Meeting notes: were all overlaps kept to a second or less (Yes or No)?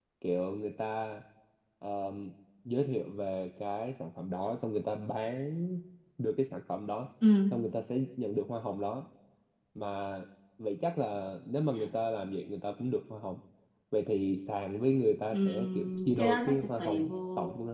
No